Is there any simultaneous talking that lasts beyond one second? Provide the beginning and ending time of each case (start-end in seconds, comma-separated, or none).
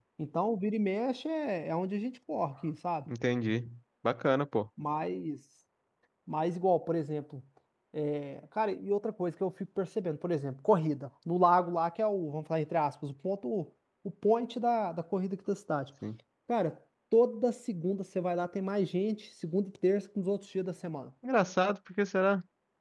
none